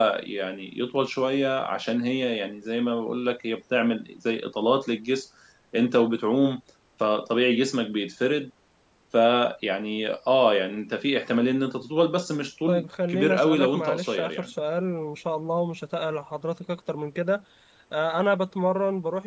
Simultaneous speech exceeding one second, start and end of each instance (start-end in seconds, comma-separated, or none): 12.7-14.5